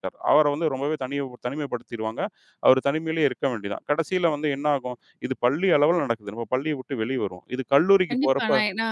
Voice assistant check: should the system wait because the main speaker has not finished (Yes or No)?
No